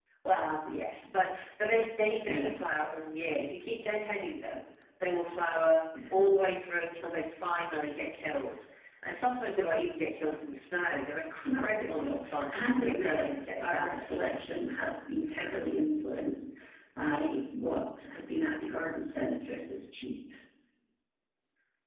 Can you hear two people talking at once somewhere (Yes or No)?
Yes